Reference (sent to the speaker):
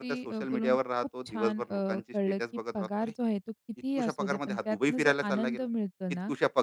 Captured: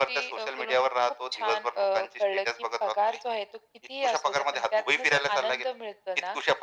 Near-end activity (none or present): none